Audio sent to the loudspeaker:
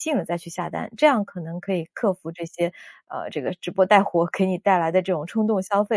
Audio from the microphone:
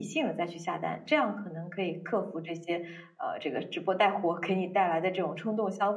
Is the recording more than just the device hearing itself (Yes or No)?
No